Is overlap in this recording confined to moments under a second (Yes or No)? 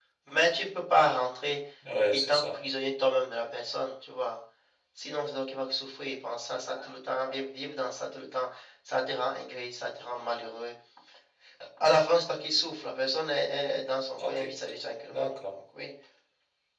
Yes